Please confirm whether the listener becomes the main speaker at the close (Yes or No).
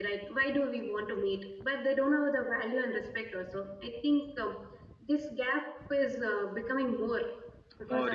Yes